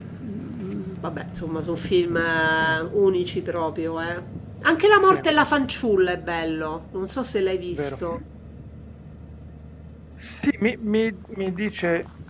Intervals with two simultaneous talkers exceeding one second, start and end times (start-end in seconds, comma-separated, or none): none